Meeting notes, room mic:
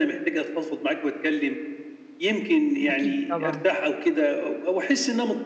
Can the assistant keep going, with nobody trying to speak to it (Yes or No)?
No